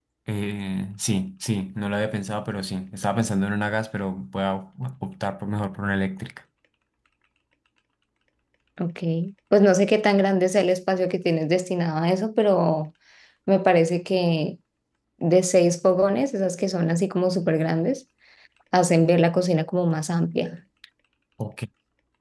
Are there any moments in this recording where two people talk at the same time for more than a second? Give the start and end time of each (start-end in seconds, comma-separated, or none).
none